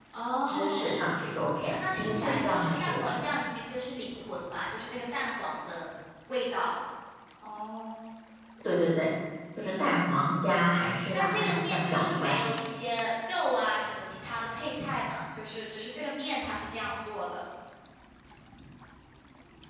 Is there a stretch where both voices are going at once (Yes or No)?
Yes